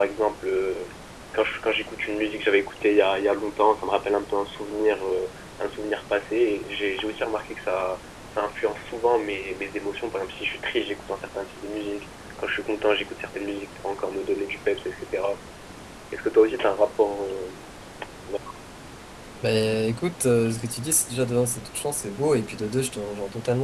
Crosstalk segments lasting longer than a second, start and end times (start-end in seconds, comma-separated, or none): none